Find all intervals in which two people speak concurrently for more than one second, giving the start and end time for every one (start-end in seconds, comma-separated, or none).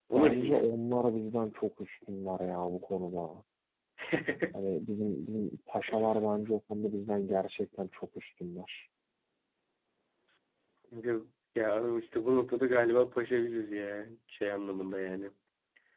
none